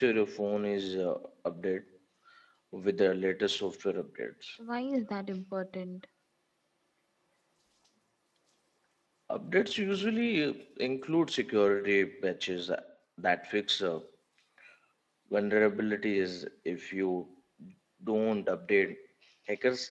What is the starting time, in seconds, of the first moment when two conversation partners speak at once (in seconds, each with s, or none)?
none